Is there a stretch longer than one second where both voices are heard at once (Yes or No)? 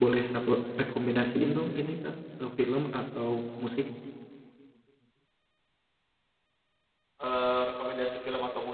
No